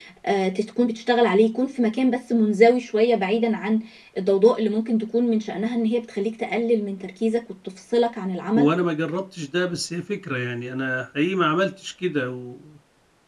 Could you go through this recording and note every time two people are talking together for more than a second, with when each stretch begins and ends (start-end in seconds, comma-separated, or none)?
none